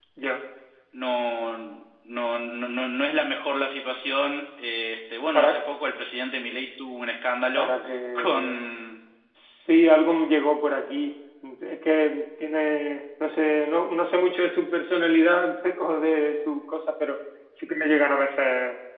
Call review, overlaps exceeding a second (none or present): none